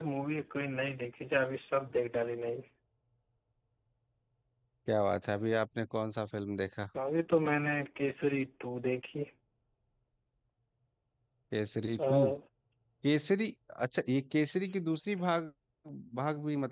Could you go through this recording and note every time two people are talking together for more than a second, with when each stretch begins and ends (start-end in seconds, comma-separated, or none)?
none